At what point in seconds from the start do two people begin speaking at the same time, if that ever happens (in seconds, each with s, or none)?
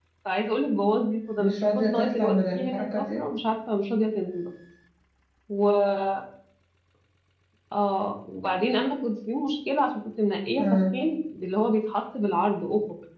1.4 s